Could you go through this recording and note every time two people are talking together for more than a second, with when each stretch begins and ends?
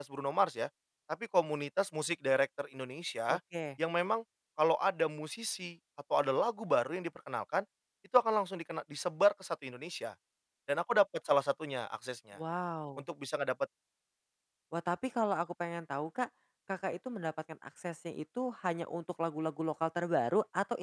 none

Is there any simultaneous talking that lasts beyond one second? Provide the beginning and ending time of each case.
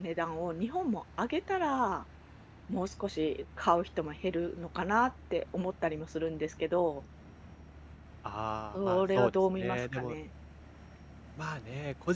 8.7-10.1

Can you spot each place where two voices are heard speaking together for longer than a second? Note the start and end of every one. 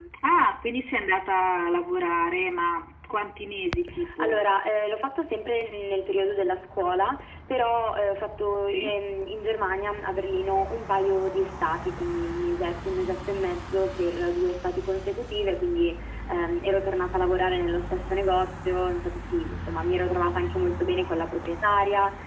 none

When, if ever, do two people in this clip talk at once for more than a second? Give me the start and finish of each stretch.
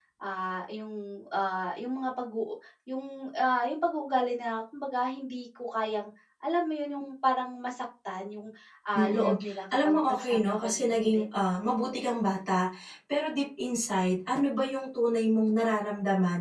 9.8-11.2

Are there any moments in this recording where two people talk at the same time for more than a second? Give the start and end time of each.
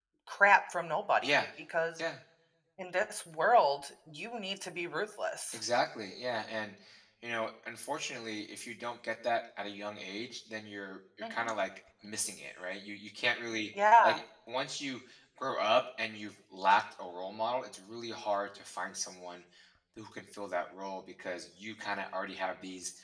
none

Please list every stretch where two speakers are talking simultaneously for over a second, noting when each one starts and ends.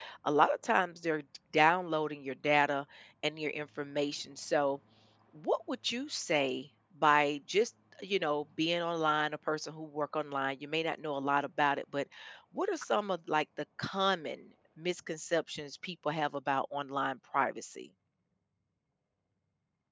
none

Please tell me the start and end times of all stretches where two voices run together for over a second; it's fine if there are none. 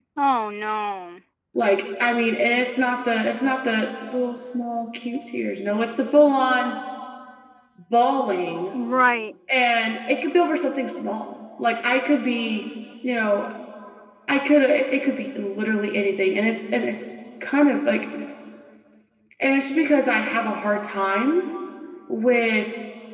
none

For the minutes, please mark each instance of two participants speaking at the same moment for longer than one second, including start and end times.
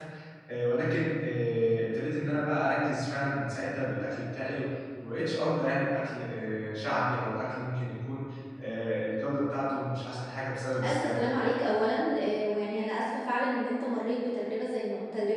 none

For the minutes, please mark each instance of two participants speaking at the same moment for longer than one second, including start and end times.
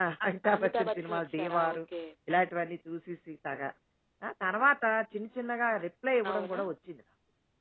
0.5-1.8

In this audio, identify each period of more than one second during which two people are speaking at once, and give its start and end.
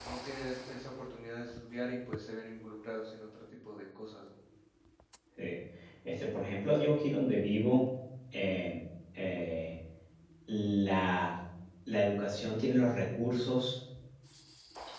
none

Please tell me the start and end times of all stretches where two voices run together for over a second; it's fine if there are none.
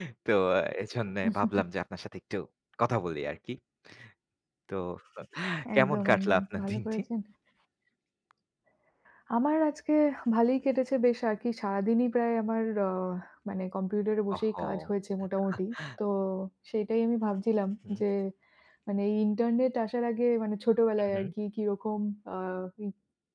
5.8-7.0

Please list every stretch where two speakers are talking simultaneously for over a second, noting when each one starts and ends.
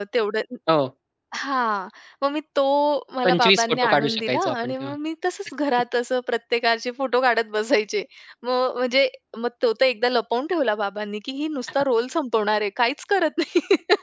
3.2-4.9

